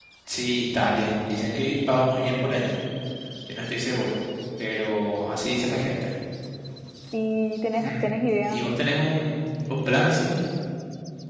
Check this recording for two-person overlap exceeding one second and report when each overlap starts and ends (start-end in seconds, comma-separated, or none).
none